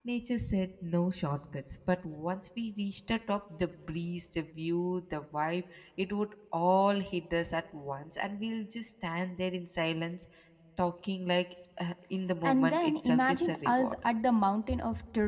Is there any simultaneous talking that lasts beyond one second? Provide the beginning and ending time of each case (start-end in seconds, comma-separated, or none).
12.4-14.0